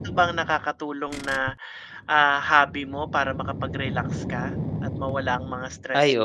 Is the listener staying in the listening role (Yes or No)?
No